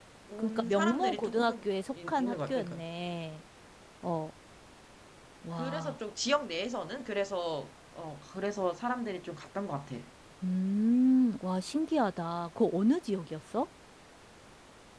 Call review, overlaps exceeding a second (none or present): present